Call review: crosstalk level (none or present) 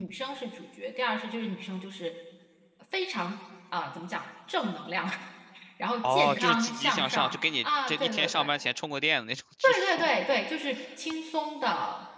present